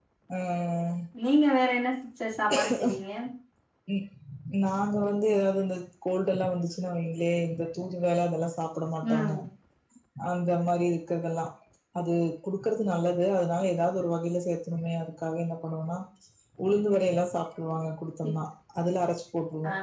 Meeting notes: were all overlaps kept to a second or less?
Yes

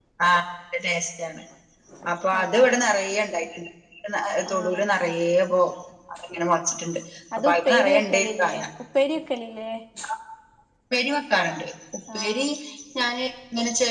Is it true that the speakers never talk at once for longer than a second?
No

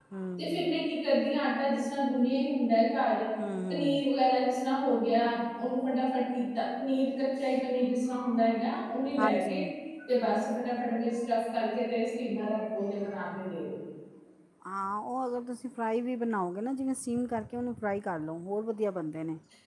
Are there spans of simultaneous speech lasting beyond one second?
No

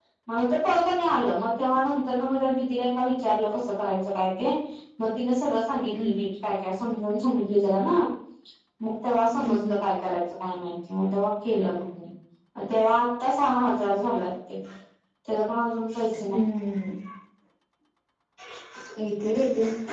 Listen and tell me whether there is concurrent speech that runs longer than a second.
No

